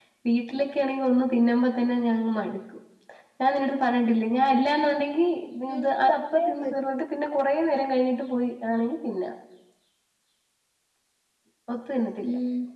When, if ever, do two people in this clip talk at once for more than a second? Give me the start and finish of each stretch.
5.8-7.0

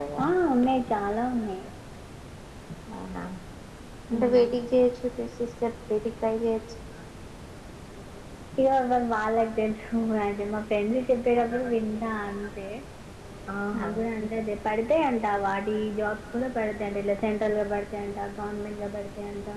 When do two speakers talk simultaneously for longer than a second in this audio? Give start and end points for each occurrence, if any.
none

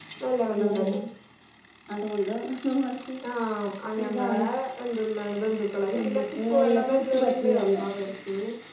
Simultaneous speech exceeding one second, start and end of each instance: 6.0-7.8

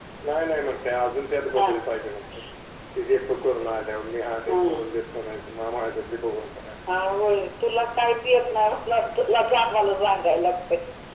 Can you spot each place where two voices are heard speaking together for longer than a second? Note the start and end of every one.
none

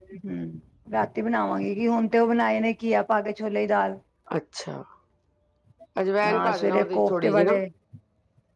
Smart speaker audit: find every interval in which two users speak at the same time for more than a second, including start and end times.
6.2-7.6

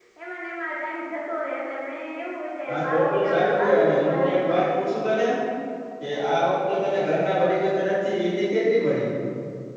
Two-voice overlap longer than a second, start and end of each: 2.7-4.6

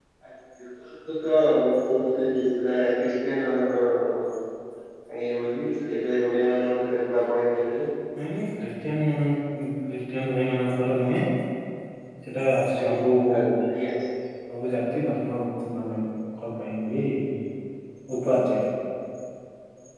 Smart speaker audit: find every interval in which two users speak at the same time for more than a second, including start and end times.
none

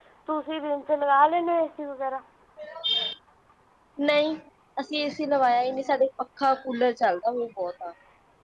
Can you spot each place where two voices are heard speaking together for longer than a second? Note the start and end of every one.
none

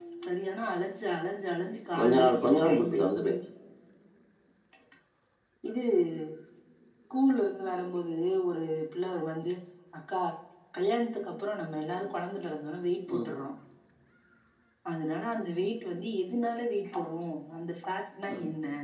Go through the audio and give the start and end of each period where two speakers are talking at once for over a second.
2.0-3.3

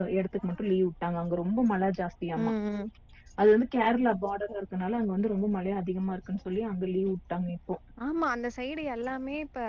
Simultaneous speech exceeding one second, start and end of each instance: none

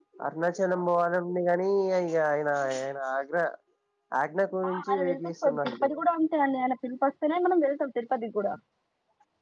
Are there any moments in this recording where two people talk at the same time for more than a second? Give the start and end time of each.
4.7-5.9

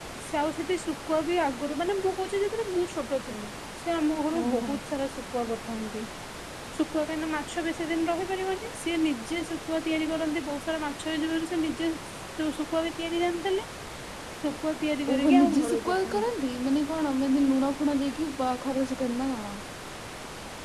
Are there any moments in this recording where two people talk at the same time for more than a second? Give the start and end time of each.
15.1-16.3

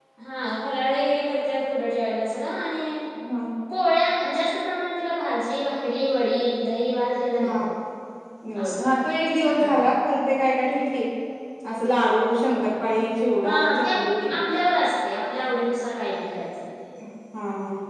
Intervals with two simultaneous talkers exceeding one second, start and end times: none

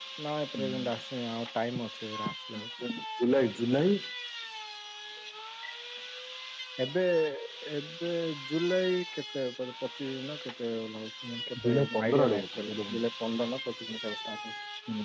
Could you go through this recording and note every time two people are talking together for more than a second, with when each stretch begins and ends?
11.7-13.0

